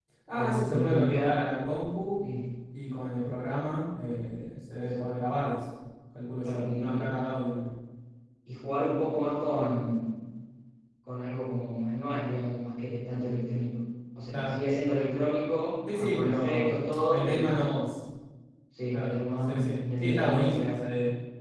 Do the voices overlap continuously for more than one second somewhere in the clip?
Yes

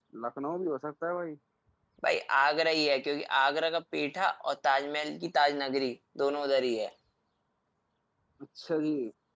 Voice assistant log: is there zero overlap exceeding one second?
Yes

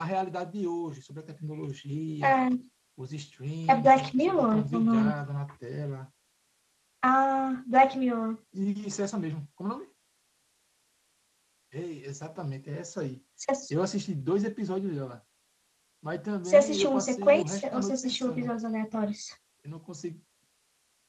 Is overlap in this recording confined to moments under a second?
No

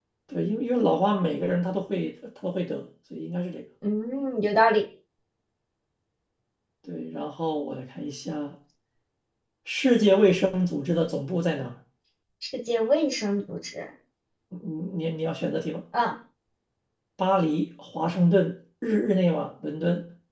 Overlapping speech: No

